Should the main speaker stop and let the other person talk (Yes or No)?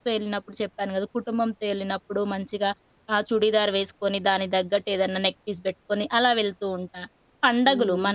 No